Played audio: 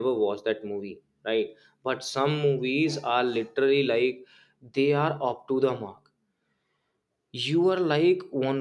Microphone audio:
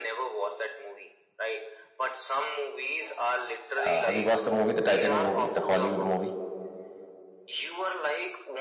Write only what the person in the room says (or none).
Uh, have you watched the movie, the Titanic movie, the Hollywood movie?